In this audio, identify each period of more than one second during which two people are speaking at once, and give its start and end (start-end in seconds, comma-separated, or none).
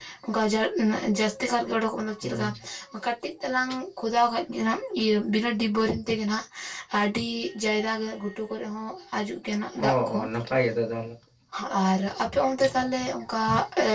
none